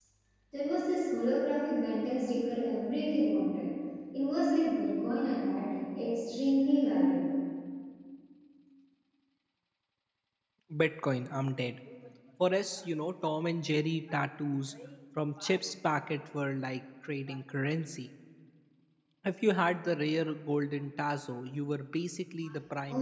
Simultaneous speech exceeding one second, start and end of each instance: none

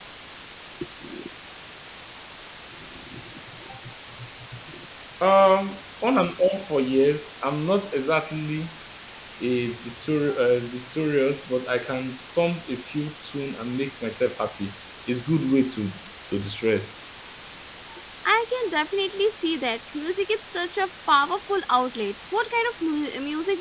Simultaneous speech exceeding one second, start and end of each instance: none

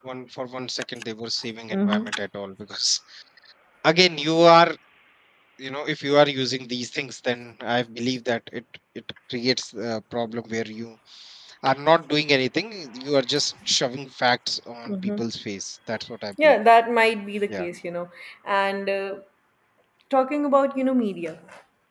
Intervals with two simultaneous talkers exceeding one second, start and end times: none

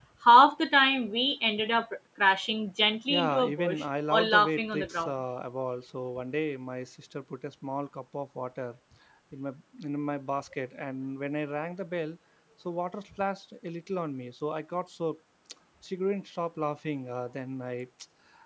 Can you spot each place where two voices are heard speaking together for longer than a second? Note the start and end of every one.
3.1-5.1

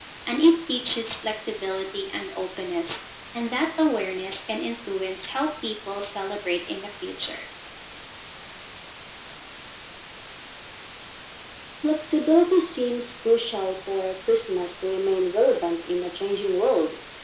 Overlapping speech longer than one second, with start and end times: none

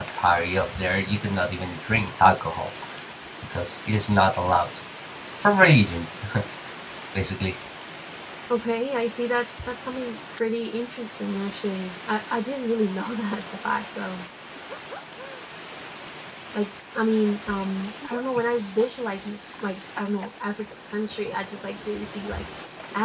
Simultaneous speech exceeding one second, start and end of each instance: none

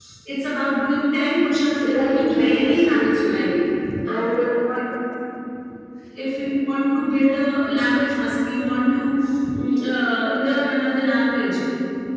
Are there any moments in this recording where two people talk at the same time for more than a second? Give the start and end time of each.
1.8-3.4

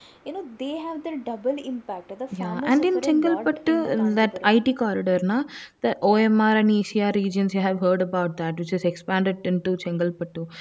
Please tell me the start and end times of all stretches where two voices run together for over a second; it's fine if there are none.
2.4-4.5

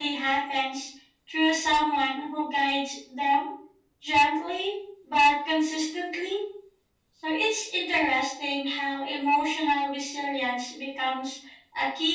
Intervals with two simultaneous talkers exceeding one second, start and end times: none

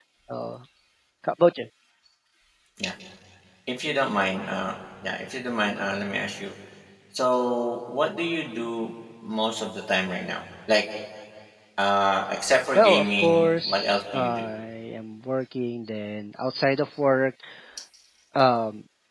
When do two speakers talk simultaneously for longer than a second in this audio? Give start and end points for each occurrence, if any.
12.8-14.5

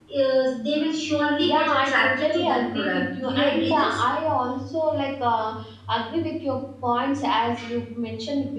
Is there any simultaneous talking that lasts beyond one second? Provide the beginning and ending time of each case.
1.5-4.0

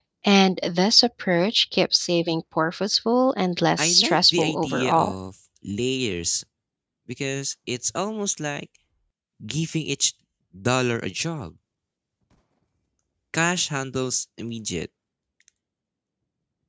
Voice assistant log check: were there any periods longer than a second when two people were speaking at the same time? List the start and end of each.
3.8-5.1

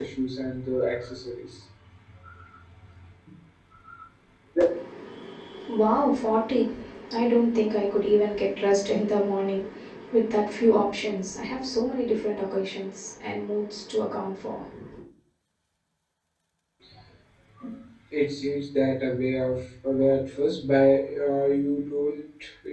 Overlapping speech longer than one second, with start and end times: none

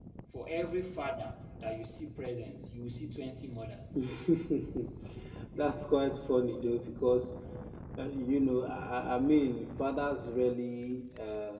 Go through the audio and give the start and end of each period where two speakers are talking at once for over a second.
none

